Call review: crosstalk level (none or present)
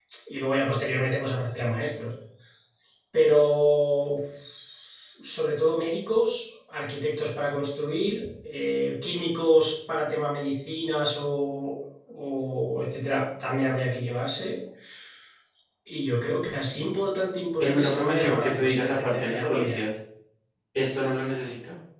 present